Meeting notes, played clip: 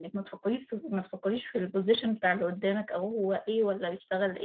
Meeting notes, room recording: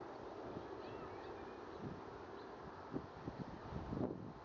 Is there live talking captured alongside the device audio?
No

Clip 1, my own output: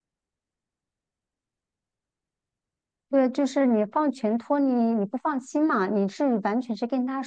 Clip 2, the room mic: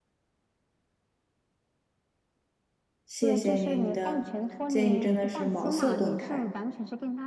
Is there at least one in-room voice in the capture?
Yes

